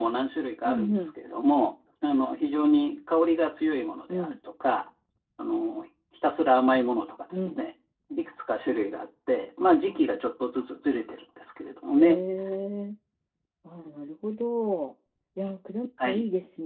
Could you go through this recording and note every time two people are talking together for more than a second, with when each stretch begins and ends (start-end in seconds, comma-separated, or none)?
none